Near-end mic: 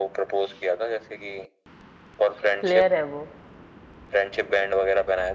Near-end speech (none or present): present